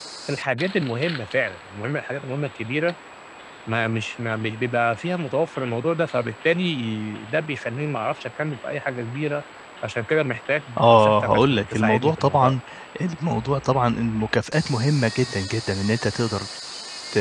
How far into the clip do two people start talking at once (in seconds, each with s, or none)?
10.8 s